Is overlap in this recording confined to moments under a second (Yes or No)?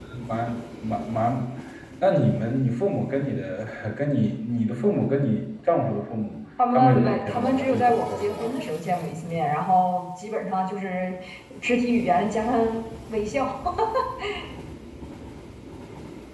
No